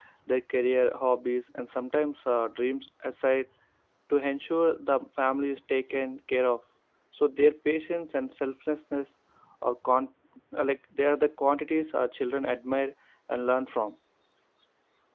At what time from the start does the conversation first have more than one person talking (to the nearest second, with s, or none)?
none